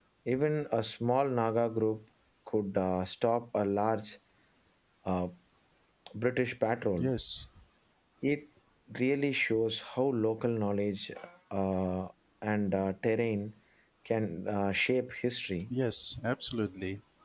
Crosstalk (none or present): none